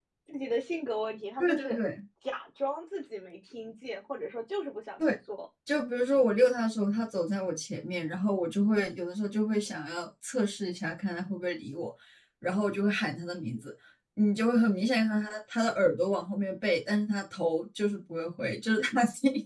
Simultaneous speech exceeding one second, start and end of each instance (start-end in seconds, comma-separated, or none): none